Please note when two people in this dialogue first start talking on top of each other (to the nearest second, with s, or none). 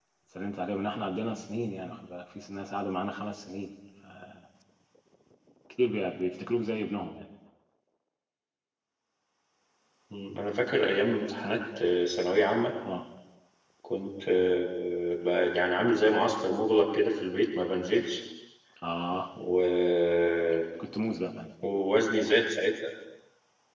none